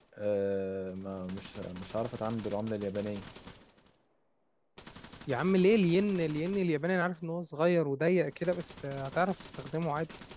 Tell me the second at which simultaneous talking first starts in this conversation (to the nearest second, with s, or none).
none